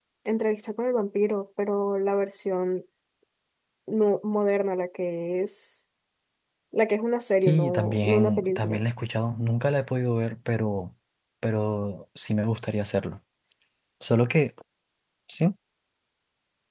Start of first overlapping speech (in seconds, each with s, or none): 7.4 s